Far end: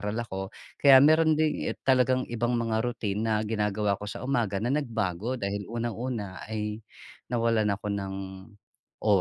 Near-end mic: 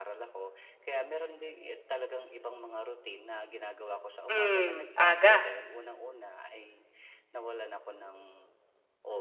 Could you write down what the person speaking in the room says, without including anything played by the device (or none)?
Hmm, aga.